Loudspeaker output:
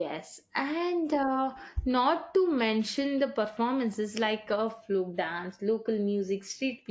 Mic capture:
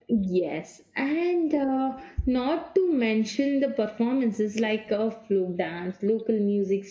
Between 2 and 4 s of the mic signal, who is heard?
echo only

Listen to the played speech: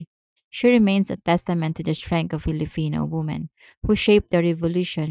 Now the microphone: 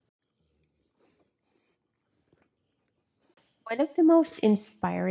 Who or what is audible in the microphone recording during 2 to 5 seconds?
user only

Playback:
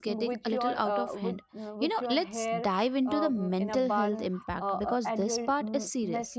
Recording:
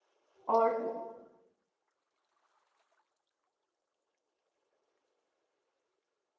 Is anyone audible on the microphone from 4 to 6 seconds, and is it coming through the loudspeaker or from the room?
neither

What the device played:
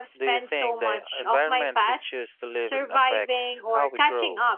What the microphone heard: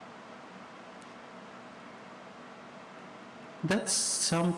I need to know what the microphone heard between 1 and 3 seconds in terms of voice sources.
neither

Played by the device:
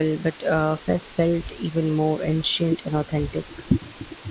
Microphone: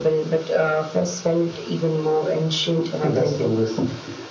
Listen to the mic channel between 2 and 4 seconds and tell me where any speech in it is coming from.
both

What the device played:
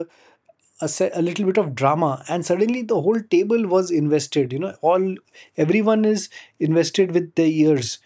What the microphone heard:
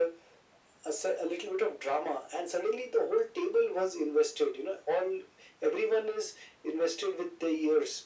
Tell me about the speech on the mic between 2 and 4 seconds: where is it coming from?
echo only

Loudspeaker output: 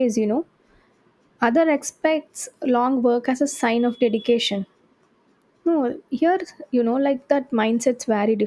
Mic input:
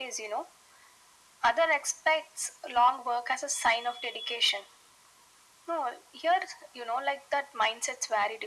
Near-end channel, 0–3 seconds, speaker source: echo only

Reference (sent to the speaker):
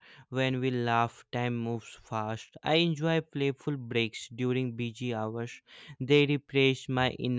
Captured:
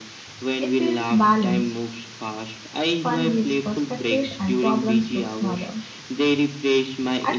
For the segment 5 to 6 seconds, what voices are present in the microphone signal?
both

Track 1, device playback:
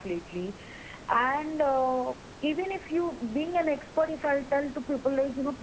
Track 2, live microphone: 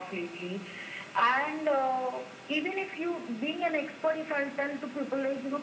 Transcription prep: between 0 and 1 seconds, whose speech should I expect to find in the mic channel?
echo only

